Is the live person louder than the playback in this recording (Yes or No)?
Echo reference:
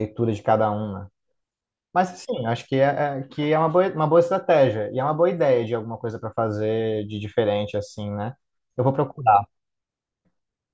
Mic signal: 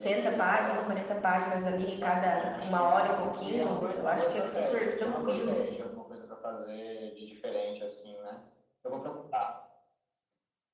Yes